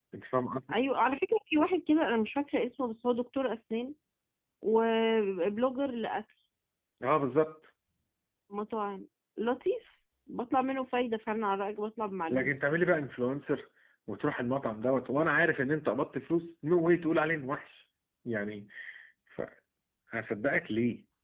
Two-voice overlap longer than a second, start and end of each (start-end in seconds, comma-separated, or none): none